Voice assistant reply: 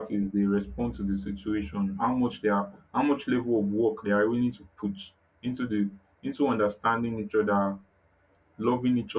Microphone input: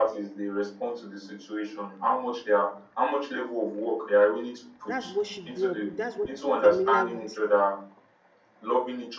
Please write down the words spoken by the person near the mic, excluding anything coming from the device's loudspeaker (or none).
that's what she grew up with that's what she's familiar with